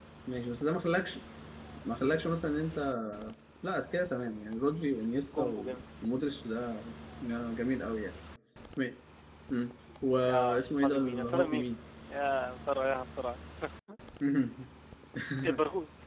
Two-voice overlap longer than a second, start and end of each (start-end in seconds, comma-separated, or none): 10.3-11.6